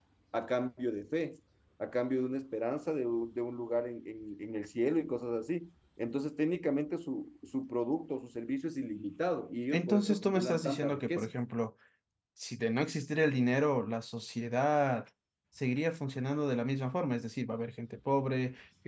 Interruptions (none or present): present